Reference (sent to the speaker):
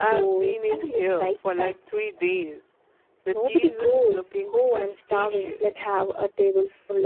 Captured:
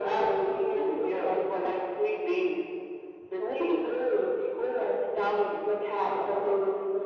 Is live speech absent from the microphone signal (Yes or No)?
Yes